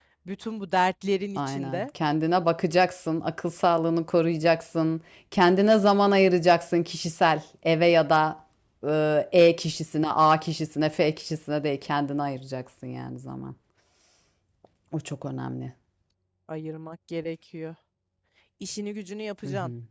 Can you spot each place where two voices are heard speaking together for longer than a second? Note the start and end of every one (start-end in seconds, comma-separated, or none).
none